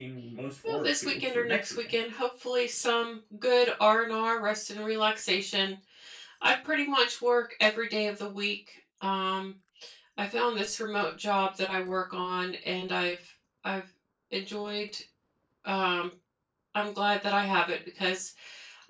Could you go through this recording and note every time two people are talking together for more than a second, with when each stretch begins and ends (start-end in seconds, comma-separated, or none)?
0.7-2.0